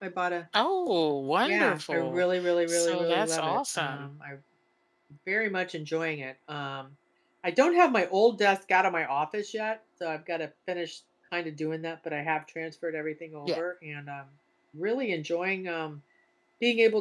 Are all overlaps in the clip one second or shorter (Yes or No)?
No